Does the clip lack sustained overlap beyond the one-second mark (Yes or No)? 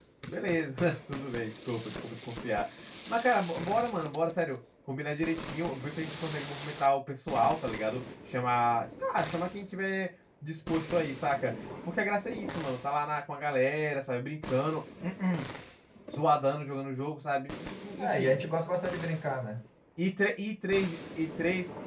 Yes